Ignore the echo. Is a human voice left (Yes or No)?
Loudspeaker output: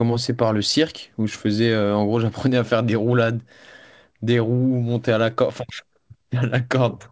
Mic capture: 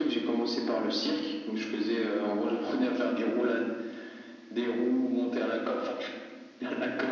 No